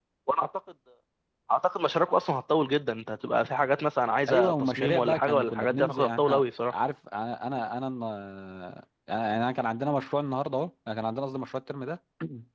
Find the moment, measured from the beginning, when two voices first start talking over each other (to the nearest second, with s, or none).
4 s